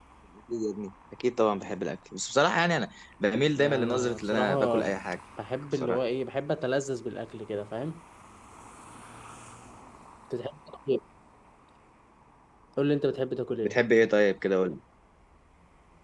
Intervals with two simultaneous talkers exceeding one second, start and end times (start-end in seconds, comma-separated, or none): 3.6-4.9